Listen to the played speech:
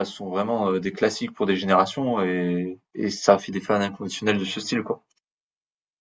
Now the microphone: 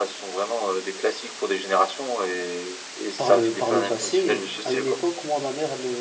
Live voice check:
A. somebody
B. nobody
A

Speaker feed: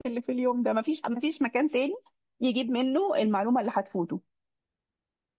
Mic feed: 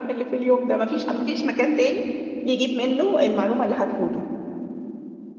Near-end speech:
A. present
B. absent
B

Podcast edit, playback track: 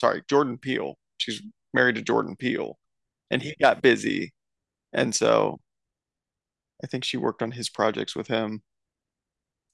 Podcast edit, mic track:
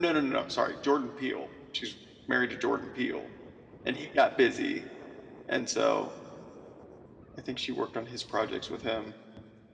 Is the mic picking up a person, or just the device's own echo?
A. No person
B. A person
A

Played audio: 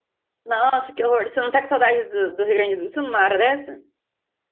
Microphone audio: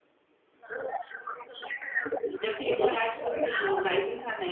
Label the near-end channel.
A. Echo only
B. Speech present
B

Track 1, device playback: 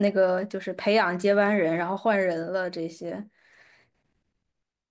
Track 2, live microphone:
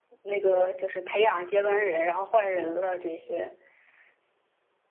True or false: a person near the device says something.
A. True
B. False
B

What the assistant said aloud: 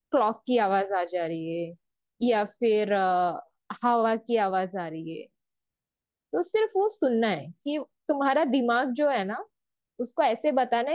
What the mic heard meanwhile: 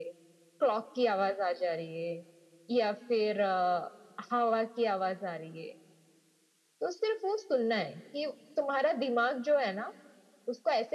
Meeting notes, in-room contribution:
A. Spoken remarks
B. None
B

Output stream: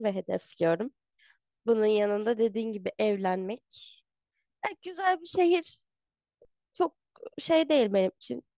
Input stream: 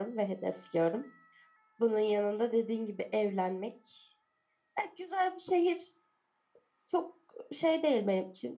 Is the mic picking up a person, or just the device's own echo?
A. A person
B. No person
B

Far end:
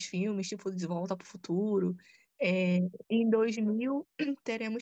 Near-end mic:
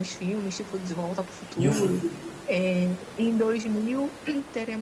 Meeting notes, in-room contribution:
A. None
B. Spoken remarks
B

